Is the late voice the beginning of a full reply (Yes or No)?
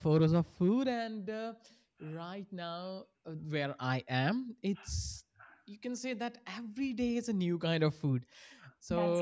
No